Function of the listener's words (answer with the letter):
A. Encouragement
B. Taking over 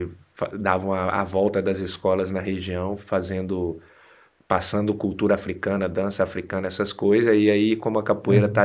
A